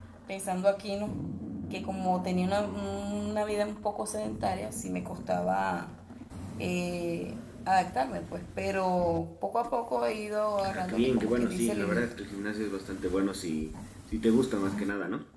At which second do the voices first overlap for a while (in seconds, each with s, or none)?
10.6 s